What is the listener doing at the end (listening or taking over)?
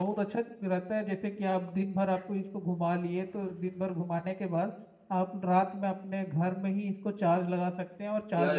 taking over